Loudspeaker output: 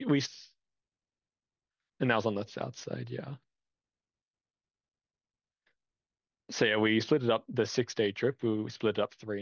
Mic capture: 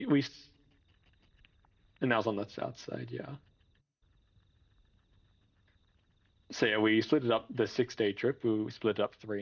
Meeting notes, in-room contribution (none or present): none